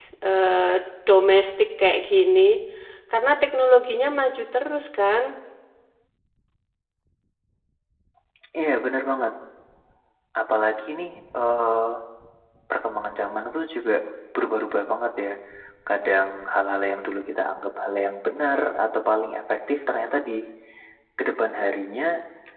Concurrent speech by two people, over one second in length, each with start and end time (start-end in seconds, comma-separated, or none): none